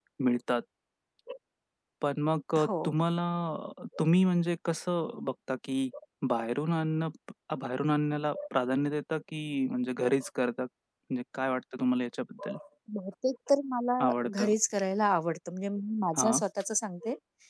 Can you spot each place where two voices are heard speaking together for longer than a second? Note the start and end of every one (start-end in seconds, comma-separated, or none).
none